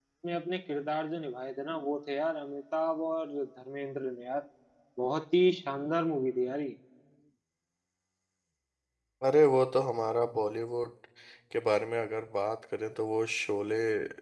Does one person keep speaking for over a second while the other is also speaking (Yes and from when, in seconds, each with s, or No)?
No